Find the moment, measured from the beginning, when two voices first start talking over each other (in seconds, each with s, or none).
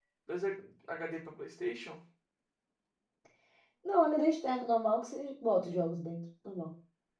none